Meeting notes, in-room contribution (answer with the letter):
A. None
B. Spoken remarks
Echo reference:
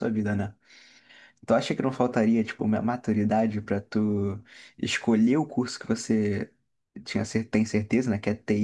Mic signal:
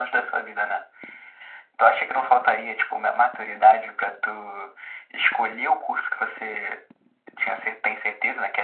A